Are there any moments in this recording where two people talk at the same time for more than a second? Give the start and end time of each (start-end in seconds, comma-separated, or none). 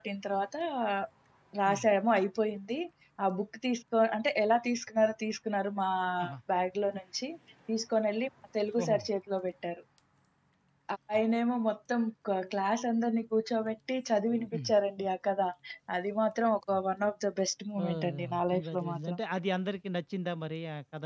17.8-19.2